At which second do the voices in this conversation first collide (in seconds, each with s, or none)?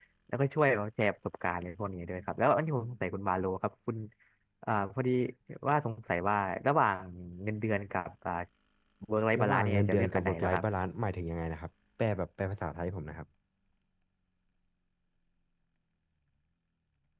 9.4 s